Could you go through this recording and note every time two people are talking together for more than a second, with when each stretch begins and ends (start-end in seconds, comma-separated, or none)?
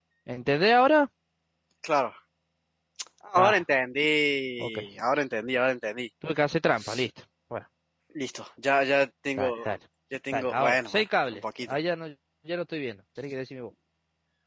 10.3-11.7